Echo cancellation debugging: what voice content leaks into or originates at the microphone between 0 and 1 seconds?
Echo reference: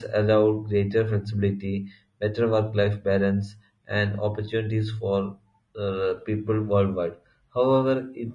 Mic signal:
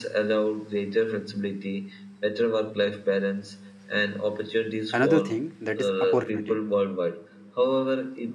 echo only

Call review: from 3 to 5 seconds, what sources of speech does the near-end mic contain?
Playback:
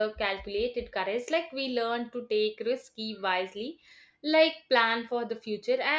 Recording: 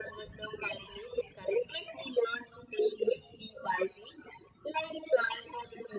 echo only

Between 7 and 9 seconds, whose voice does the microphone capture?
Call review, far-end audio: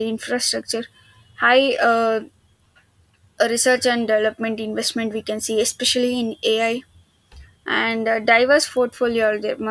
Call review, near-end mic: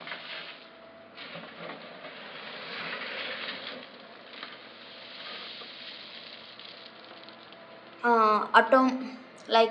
user only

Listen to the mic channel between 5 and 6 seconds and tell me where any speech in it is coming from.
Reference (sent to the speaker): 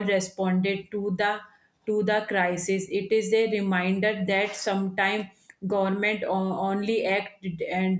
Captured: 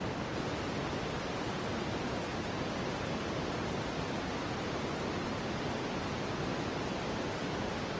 neither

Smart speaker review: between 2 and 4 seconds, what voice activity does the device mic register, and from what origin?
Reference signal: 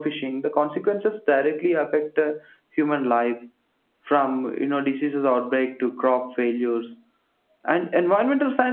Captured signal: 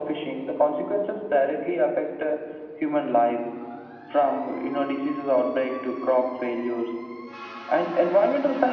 echo only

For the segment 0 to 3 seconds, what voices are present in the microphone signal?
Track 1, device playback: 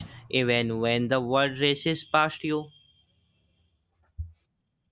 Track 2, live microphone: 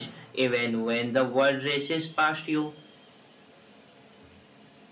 echo only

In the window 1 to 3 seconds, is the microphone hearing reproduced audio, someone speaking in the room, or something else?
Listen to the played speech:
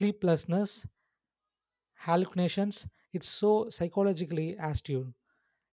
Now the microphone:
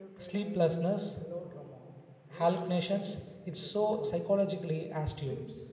both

